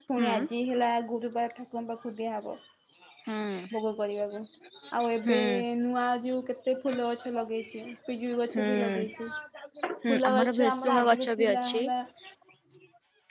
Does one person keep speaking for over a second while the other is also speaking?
Yes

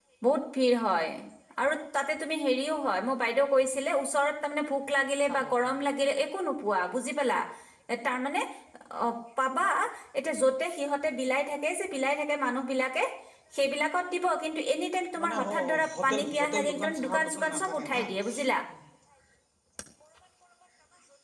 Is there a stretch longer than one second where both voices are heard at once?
Yes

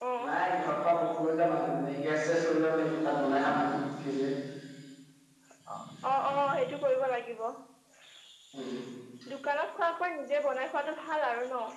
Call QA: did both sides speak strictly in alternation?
Yes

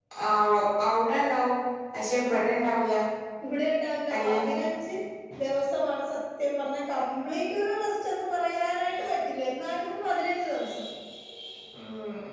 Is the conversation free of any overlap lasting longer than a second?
Yes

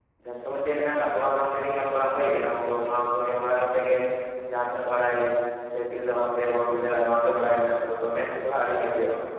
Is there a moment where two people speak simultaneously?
No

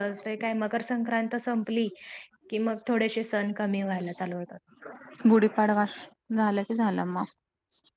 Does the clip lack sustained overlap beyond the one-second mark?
Yes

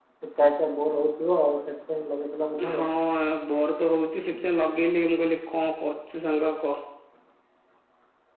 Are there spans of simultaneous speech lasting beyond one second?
No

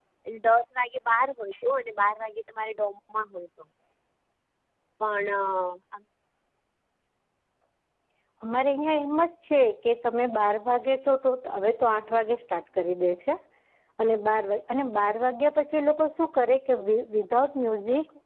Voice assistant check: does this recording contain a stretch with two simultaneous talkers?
No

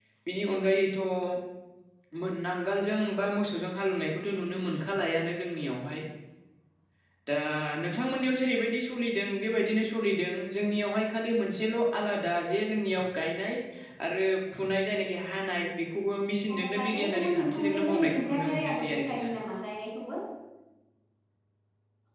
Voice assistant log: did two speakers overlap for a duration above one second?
Yes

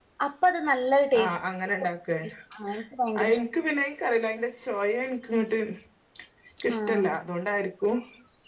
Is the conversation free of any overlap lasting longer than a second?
Yes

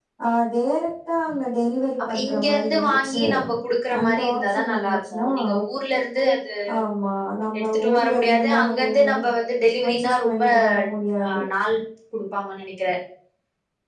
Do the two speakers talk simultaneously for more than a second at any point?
Yes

